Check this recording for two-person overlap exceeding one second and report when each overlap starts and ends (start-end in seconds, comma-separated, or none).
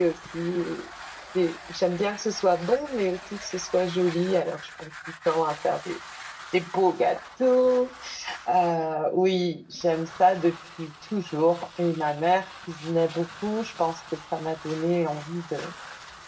none